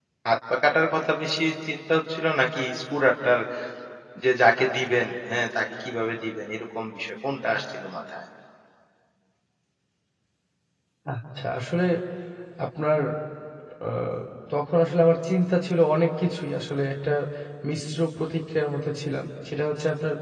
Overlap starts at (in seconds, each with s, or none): none